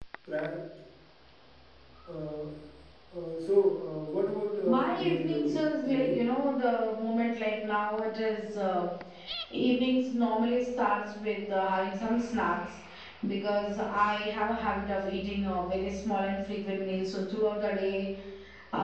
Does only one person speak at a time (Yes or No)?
No